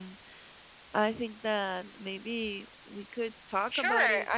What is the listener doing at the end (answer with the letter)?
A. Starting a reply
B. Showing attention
A